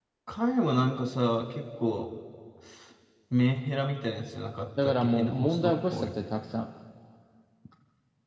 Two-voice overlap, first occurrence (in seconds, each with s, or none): 4.8 s